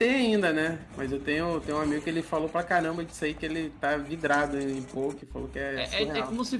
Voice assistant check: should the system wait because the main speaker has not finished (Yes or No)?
No